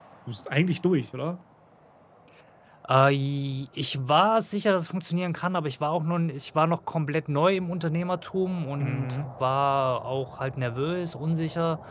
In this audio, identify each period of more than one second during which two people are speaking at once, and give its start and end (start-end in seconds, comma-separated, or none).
none